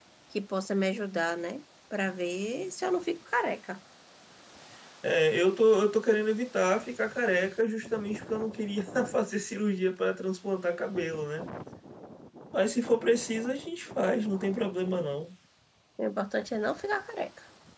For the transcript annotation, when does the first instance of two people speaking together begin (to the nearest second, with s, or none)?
none